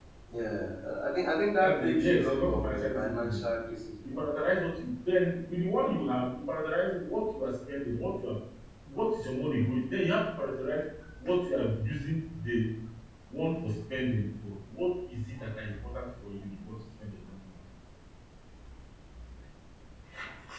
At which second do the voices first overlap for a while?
2 s

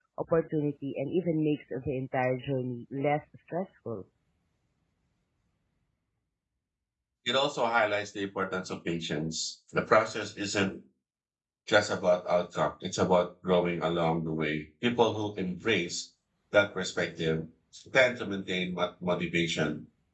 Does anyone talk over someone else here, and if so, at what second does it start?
none

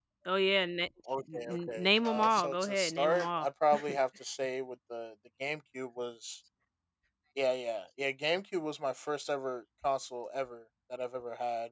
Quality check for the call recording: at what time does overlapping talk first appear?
1 s

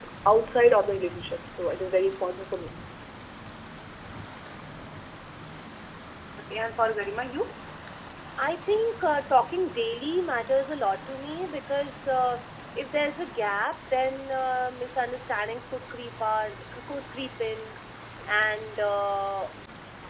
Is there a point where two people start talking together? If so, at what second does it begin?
none

